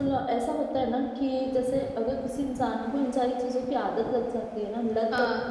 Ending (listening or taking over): listening